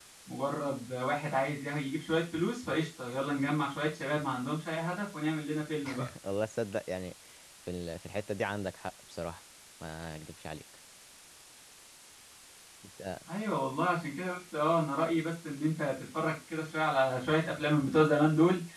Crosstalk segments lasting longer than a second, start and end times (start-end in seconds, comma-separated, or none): none